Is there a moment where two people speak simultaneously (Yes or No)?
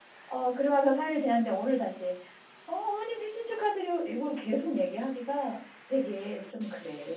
No